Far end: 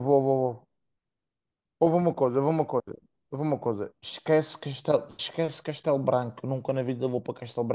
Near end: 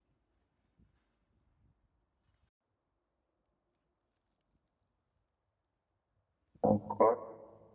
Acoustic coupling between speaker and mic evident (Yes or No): No